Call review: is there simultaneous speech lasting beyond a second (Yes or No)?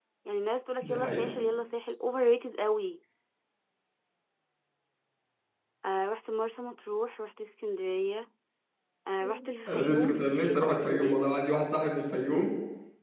Yes